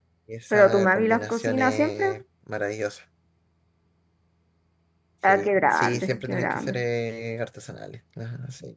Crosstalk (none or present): present